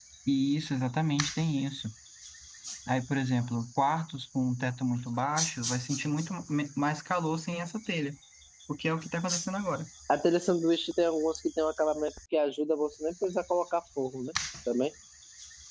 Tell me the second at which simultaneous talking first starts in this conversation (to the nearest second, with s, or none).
none